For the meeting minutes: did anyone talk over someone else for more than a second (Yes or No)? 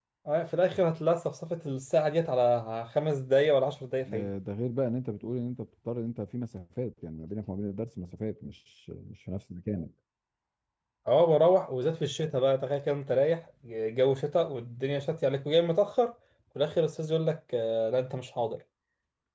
No